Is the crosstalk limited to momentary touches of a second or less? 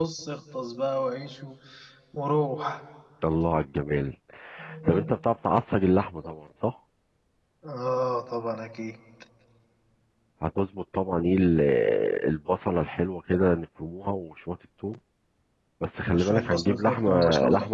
No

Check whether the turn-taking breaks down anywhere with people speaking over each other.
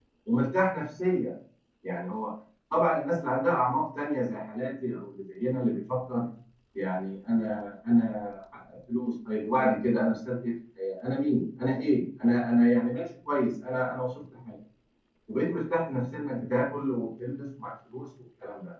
No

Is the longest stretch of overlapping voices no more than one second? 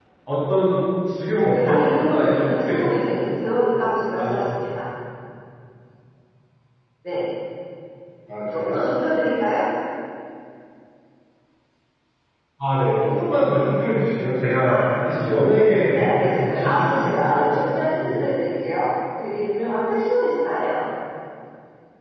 No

